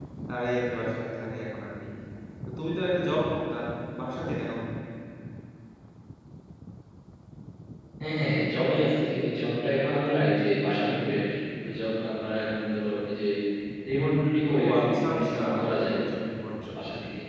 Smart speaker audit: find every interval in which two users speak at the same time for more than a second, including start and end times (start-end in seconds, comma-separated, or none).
14.5-15.9